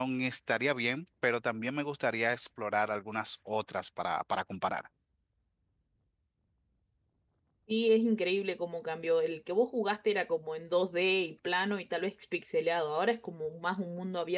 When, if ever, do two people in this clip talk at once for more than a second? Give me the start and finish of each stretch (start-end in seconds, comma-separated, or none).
none